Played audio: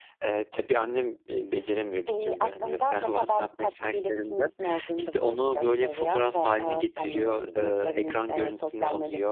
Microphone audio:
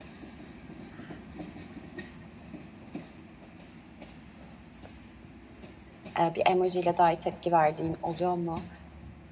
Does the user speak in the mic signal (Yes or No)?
Yes